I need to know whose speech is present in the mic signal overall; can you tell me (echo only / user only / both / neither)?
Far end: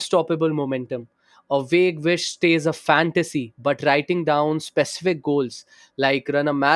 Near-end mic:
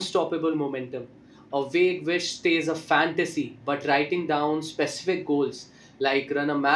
echo only